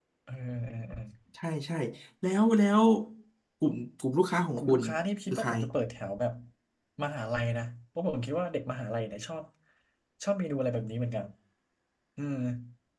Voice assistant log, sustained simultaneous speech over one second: none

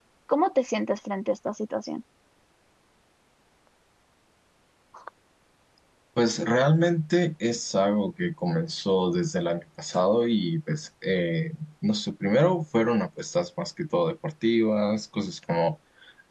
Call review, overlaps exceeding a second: none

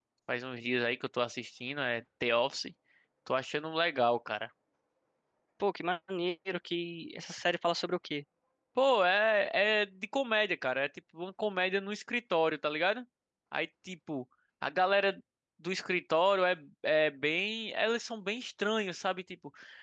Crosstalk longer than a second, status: none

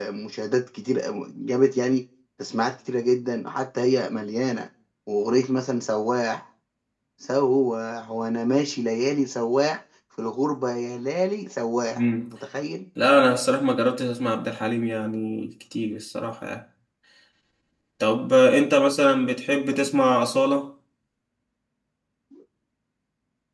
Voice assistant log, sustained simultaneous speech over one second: none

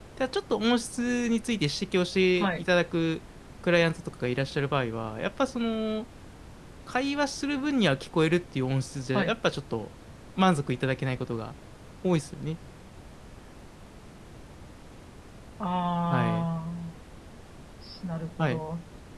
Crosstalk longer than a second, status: none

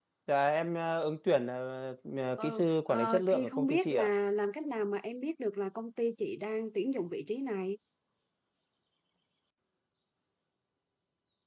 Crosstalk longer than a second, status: present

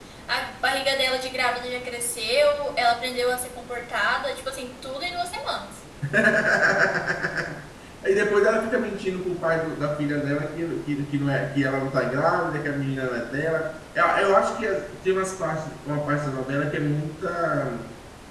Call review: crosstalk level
none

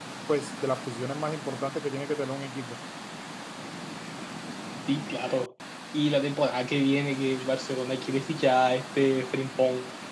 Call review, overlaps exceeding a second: none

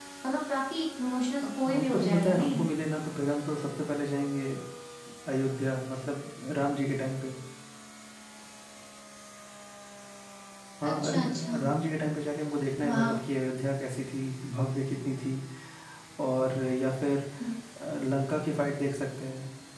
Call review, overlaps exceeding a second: present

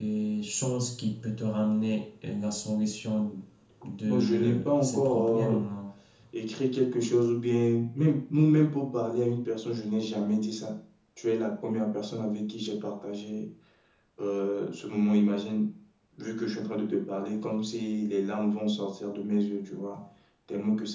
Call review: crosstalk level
present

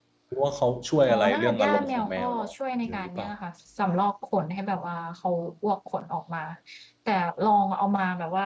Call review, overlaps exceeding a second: present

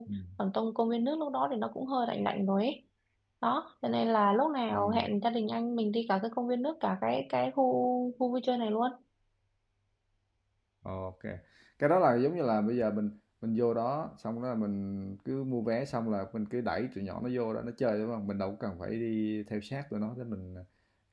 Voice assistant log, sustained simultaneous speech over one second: none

